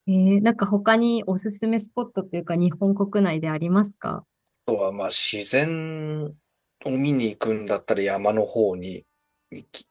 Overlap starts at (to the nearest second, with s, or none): none